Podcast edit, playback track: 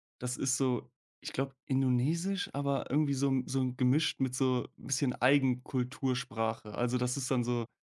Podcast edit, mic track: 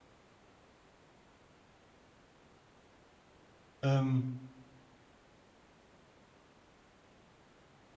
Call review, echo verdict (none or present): none